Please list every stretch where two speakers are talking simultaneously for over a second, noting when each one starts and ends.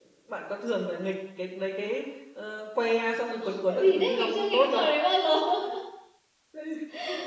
3.5-4.9

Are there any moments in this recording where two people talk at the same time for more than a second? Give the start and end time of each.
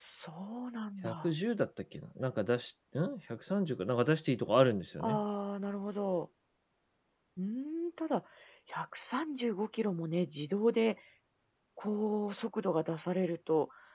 none

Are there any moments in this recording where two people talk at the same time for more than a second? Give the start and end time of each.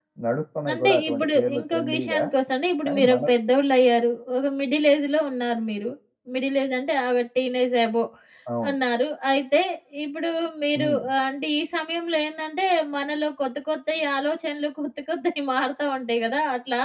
0.7-2.2

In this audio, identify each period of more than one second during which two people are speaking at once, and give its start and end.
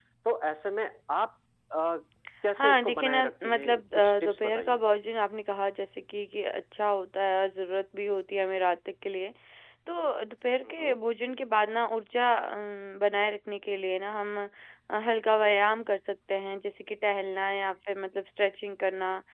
2.6-4.8

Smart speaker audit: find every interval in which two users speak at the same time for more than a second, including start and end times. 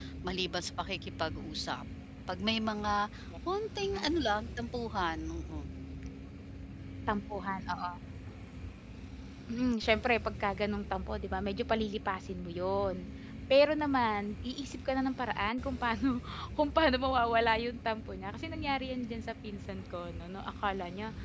none

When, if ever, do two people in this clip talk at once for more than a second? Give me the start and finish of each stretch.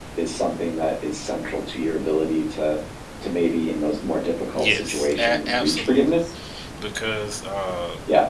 4.6-6.2

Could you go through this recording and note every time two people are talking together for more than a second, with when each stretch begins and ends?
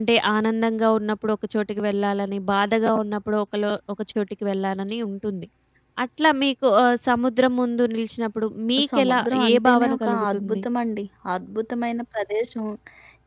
9.0-10.6

